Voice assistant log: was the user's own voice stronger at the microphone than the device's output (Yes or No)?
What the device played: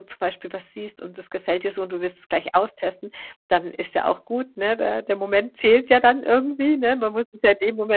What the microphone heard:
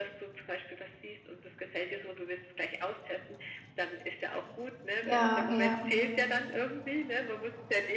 Yes